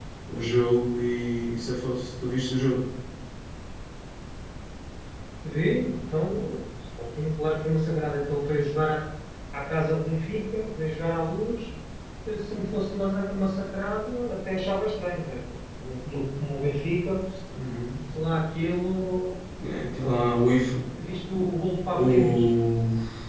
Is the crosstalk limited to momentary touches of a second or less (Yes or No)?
Yes